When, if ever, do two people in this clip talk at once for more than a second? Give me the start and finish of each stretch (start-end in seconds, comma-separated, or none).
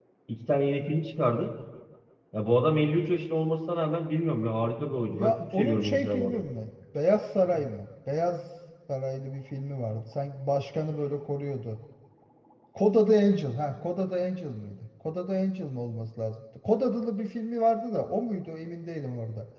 5.1-6.4